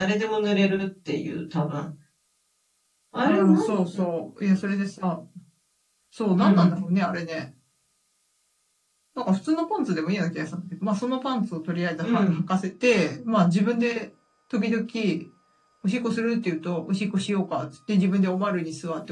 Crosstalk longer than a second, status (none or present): none